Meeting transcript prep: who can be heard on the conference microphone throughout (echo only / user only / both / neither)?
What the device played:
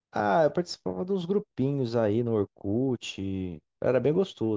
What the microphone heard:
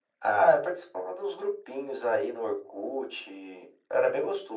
echo only